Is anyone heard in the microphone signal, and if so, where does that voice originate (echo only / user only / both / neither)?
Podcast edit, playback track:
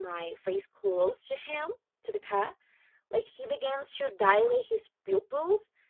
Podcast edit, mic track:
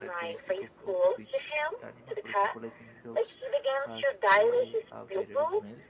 both